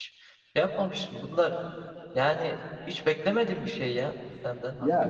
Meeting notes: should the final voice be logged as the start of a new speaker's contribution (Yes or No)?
Yes